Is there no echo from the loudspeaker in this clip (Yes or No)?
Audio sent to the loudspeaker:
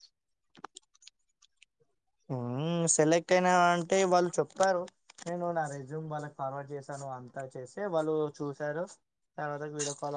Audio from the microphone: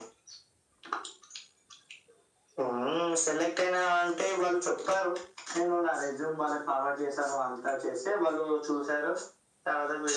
No